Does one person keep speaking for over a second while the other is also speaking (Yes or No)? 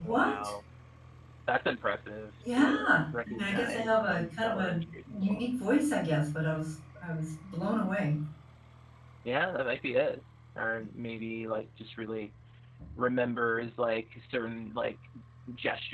Yes